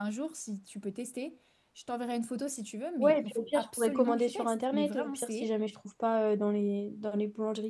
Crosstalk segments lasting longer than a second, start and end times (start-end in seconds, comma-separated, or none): 3.0-5.5